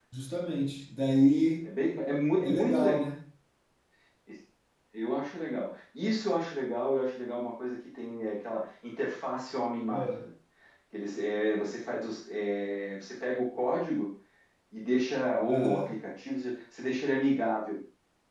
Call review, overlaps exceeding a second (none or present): none